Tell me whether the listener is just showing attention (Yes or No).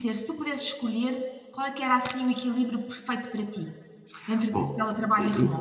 No